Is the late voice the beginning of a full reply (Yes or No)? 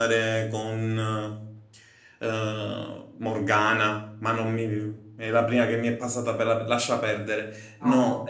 No